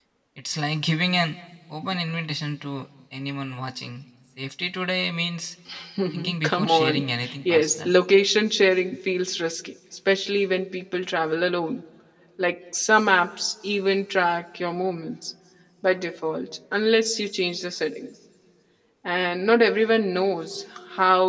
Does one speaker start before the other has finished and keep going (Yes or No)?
Yes